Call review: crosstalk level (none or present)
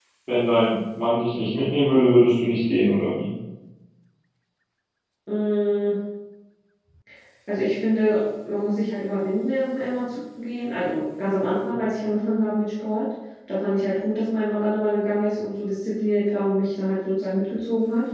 none